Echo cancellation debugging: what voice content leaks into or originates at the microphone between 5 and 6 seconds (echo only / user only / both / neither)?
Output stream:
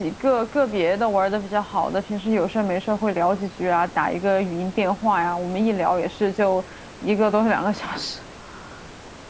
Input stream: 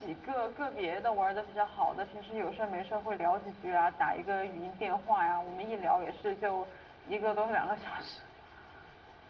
echo only